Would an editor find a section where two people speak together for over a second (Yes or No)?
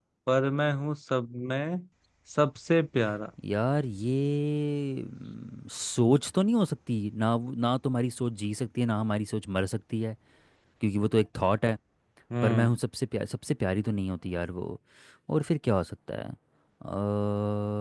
No